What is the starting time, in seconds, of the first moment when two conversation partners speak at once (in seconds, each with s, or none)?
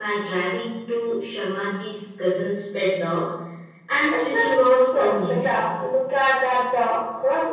4.1 s